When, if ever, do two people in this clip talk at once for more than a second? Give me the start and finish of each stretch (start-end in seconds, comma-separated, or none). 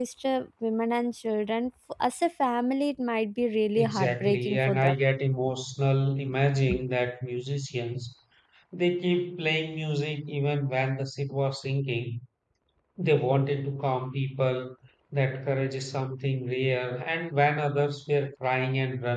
3.8-5.0